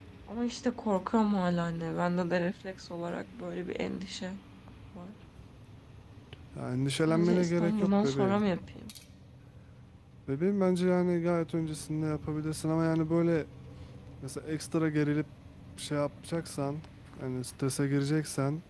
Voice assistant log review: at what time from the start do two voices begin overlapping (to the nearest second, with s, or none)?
7 s